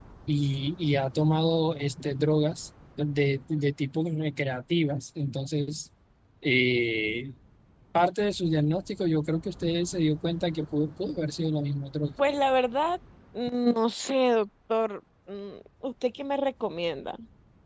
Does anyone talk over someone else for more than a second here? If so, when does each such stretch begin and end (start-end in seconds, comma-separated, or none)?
none